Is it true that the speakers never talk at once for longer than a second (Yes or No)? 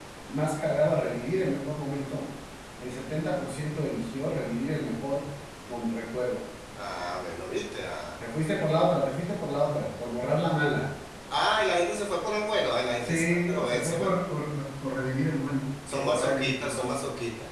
No